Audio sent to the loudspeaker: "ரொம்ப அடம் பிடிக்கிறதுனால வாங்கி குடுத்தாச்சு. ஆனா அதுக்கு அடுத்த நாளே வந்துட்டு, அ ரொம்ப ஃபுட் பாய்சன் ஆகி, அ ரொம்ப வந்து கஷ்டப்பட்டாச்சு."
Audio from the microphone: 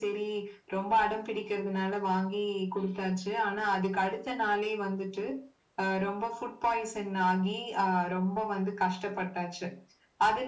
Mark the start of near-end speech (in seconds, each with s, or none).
none